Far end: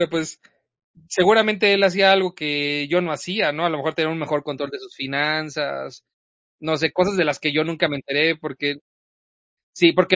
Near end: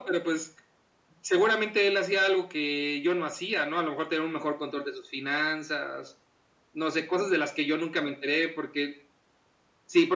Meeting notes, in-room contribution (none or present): none